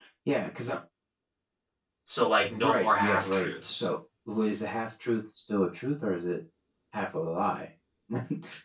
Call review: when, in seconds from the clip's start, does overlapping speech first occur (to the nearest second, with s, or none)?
3 s